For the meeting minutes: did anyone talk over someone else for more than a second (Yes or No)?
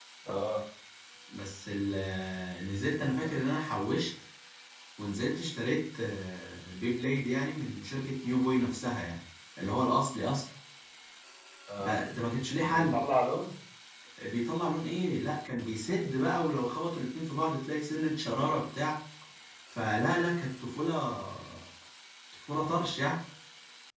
No